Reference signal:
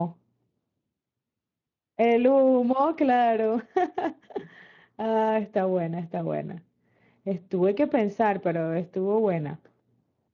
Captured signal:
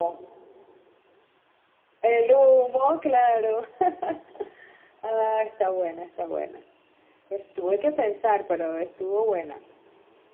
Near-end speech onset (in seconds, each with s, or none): none